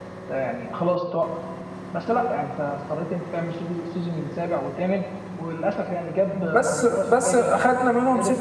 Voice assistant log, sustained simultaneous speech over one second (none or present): present